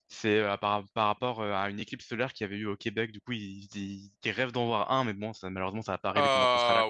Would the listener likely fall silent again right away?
No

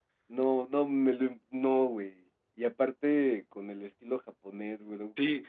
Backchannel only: No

